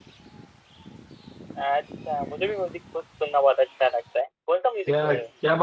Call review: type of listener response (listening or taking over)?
taking over